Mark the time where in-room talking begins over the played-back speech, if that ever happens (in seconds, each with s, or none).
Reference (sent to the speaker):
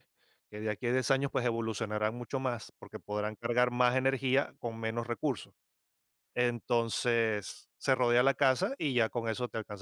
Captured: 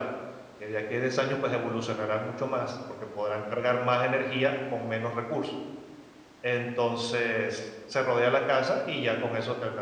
none